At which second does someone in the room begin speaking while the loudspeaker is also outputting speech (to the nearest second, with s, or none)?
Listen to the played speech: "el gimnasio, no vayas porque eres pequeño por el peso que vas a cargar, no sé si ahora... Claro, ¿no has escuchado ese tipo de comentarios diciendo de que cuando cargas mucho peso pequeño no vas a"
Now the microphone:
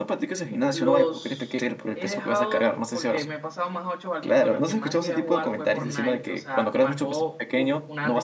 1 s